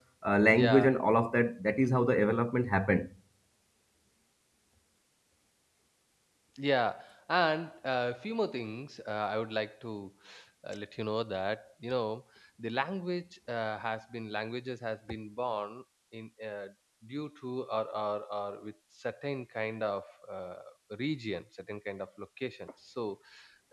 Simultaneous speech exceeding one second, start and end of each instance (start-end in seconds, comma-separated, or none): none